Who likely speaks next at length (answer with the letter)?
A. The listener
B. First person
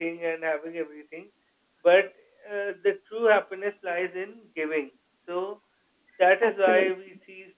B